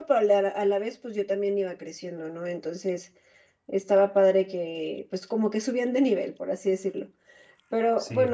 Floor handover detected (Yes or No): No